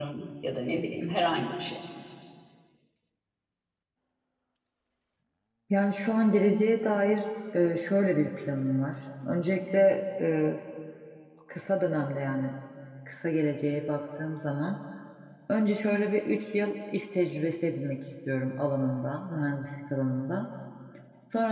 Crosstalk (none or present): none